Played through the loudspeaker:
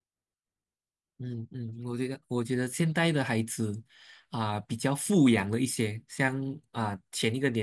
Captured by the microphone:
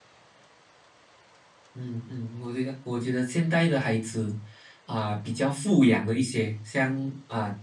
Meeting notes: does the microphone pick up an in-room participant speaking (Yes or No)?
No